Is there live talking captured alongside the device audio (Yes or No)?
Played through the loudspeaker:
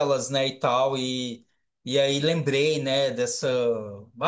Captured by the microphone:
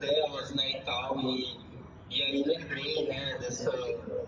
No